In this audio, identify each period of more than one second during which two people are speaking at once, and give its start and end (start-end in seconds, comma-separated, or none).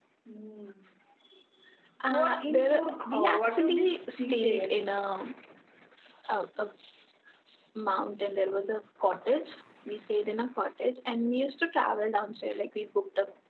2.1-4.8